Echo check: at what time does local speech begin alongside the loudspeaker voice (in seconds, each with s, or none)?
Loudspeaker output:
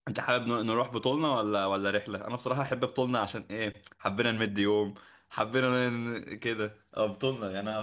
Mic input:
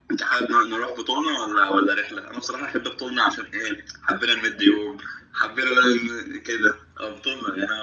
none